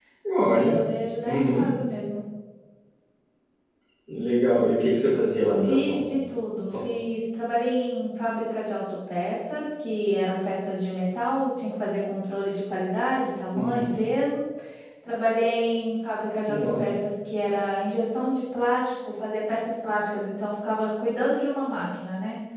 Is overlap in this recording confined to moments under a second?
Yes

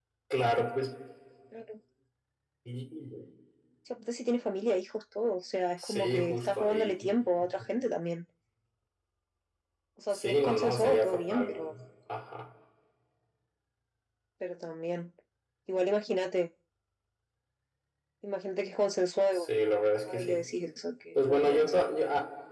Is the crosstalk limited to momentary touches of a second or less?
No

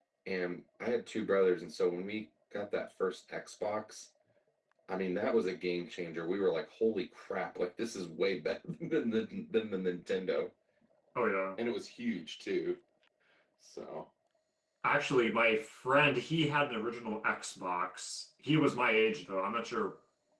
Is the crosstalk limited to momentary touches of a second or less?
Yes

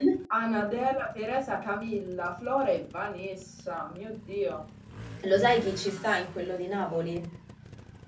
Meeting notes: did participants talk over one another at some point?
No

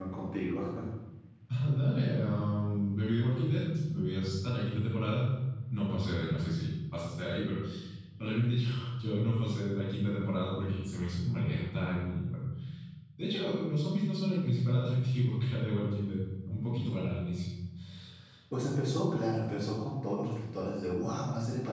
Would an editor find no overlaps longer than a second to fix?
Yes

